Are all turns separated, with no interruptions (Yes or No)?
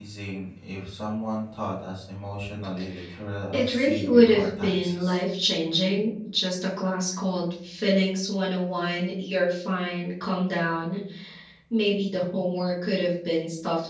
No